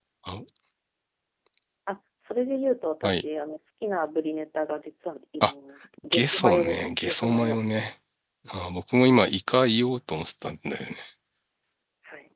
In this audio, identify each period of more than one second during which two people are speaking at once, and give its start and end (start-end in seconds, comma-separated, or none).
6.1-7.6